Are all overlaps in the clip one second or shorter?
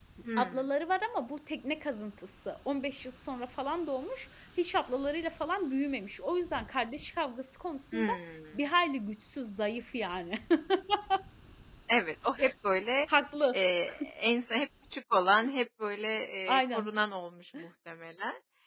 Yes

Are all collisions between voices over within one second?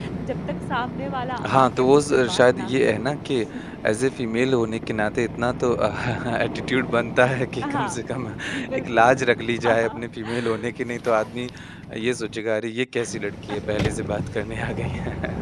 No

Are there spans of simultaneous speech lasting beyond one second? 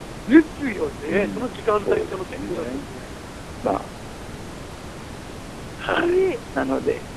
Yes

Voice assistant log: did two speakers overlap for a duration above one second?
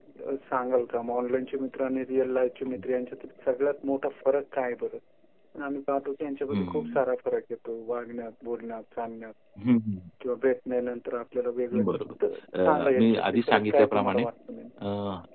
Yes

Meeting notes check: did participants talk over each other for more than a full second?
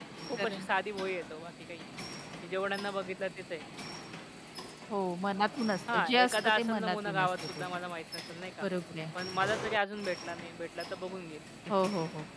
Yes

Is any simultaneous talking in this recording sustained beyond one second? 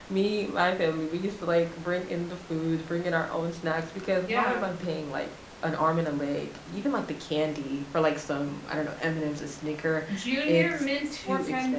Yes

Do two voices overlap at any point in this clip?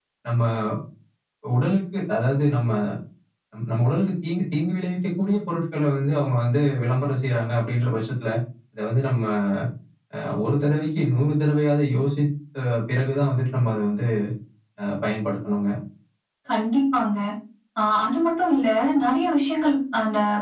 No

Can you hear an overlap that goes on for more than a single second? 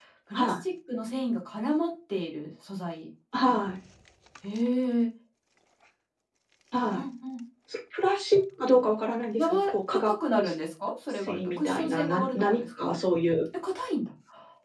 Yes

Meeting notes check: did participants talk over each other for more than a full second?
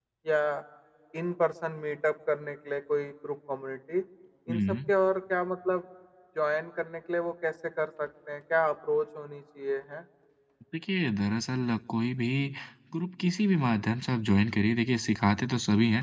No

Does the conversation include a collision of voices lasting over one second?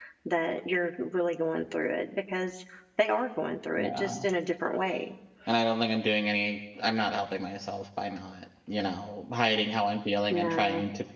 No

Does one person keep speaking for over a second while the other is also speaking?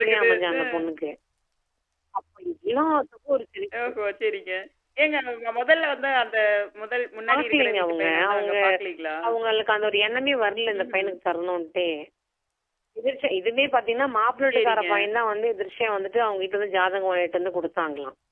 Yes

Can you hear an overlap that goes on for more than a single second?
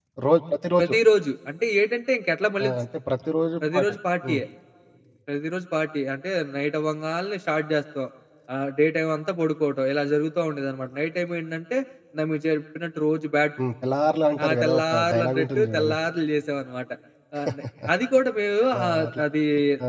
Yes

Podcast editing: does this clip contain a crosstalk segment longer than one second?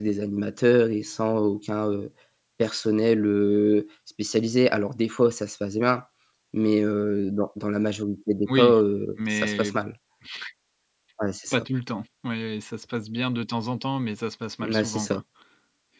No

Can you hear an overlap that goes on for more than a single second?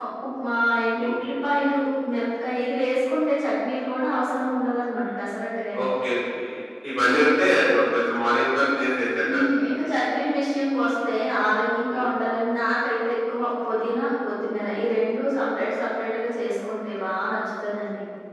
No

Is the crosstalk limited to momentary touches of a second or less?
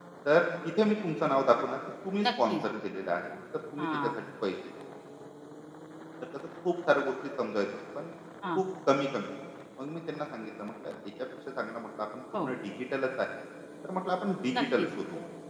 Yes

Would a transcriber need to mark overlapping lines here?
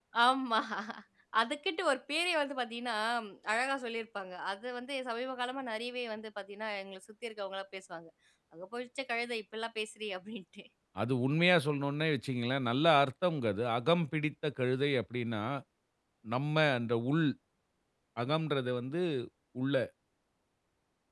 No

